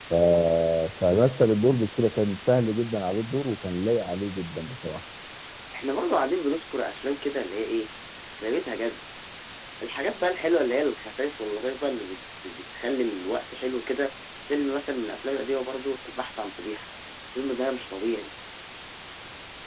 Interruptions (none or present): none